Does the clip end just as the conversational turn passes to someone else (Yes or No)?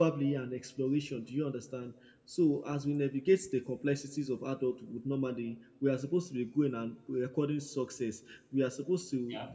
No